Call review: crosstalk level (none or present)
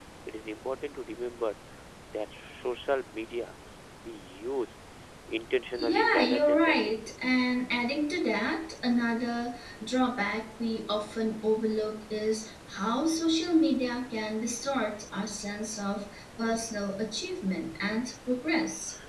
present